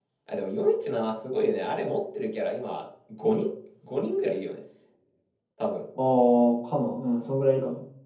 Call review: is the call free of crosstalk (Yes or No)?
Yes